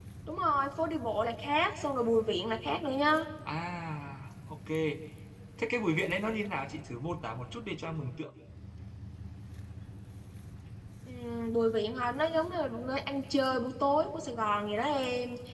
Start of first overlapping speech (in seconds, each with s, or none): none